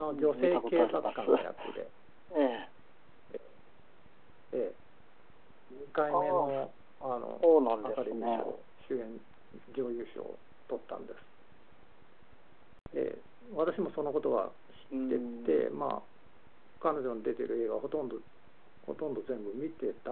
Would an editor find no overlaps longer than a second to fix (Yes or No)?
No